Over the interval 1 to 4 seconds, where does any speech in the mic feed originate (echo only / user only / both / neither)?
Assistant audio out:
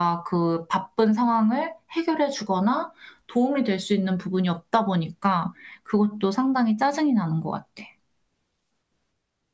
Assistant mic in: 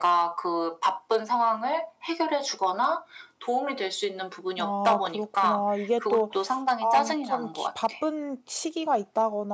echo only